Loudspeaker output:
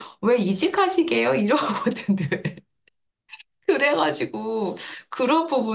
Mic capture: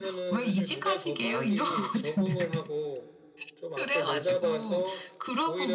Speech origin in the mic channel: both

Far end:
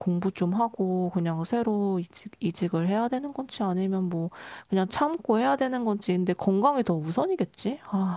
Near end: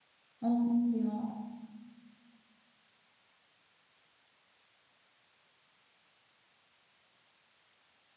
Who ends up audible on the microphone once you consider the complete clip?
user only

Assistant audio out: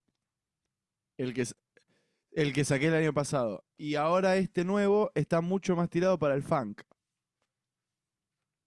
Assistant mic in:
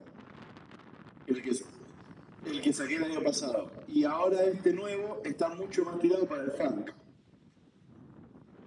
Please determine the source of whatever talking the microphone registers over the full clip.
echo only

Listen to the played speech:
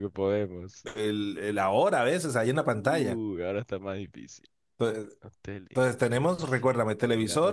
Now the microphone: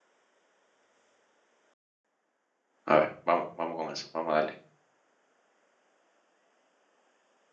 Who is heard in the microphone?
user only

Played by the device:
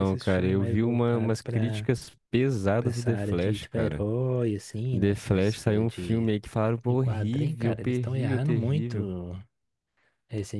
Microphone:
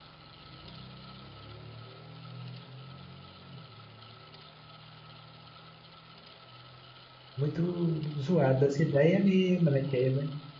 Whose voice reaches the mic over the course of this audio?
user only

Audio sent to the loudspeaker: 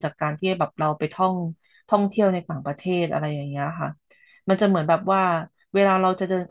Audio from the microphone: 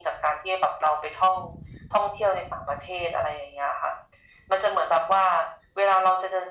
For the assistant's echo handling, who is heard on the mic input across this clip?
echo only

